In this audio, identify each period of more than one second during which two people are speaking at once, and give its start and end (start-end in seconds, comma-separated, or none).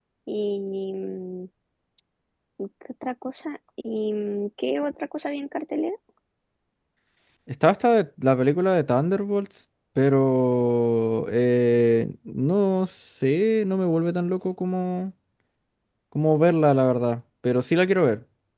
none